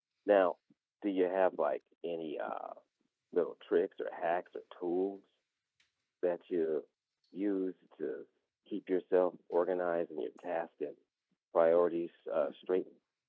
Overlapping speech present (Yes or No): No